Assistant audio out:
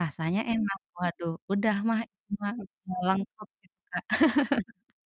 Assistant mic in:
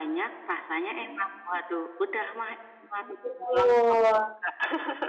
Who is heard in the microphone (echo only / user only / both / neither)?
both